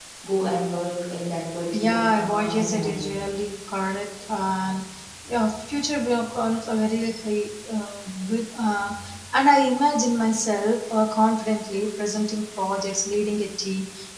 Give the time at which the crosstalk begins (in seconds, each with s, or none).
1.7 s